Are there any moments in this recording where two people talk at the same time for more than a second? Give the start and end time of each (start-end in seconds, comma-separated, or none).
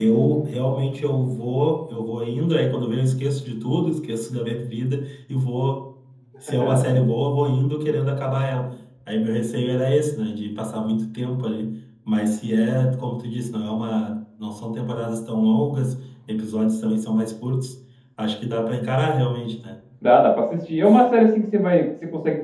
none